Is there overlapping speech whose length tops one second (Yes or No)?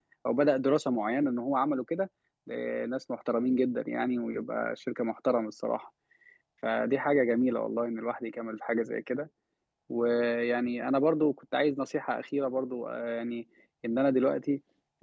No